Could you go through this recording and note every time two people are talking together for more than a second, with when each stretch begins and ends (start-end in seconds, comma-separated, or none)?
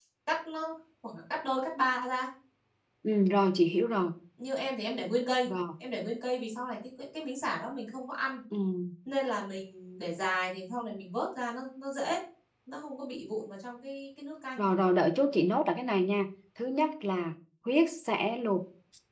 none